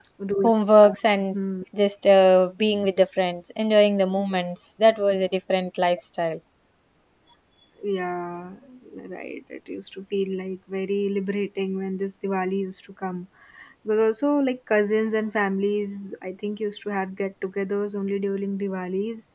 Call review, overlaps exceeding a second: none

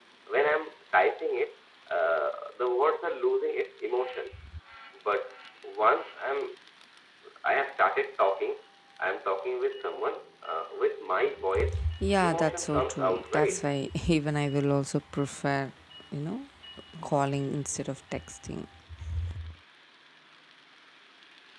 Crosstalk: present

